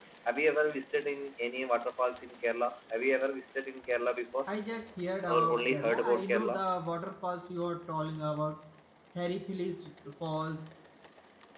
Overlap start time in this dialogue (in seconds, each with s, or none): 5.3 s